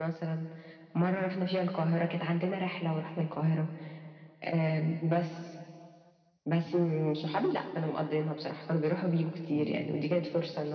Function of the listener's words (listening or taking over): listening